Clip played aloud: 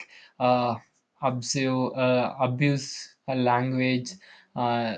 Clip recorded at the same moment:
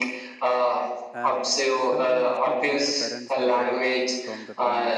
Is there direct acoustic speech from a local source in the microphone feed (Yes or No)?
Yes